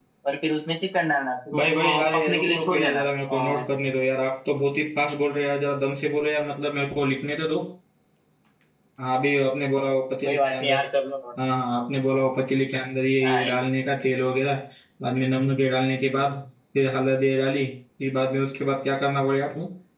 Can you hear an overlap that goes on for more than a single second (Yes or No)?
Yes